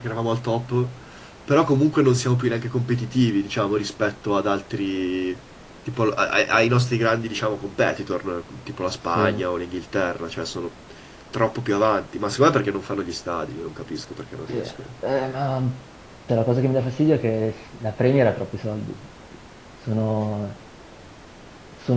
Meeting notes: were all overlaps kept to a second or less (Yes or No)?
Yes